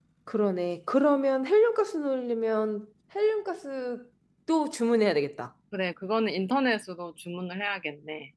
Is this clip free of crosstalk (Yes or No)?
Yes